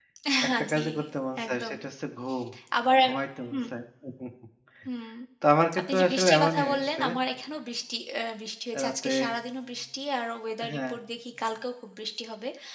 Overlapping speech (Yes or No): Yes